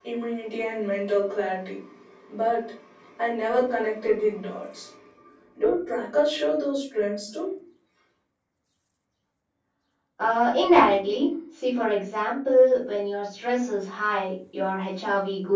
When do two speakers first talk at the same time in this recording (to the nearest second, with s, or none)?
none